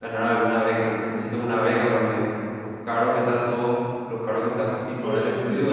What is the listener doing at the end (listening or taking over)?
taking over